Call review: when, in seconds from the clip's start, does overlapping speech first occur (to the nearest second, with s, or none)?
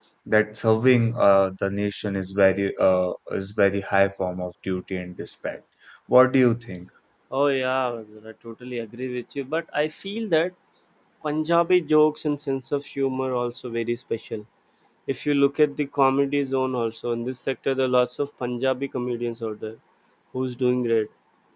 none